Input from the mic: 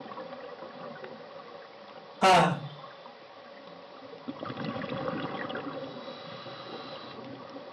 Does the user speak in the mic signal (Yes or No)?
Yes